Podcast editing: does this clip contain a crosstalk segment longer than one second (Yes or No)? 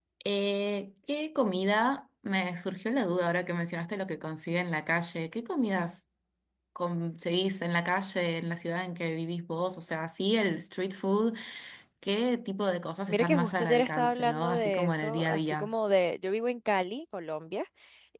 Yes